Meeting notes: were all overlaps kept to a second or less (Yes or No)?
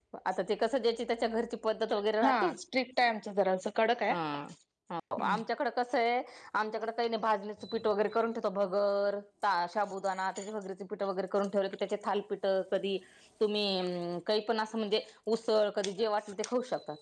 Yes